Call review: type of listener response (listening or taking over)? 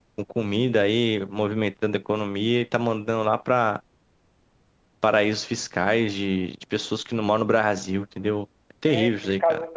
taking over